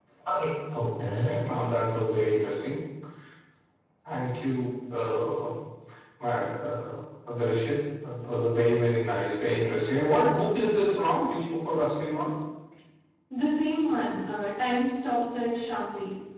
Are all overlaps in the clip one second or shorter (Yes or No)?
Yes